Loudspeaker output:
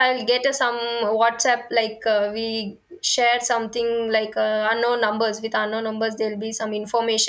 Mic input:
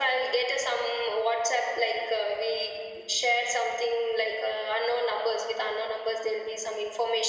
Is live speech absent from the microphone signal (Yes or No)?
Yes